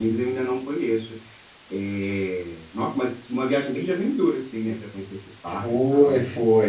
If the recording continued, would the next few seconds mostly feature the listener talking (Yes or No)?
Yes